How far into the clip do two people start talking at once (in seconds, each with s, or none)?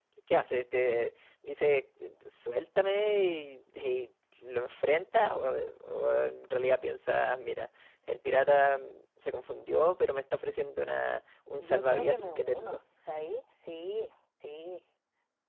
11.6 s